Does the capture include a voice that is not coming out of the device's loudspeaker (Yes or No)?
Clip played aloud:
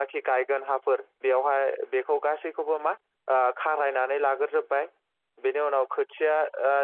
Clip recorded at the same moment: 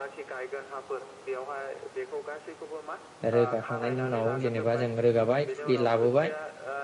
Yes